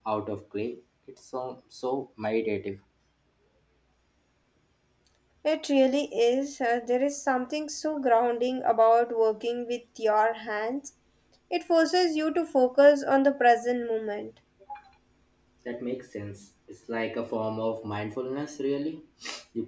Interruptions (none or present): none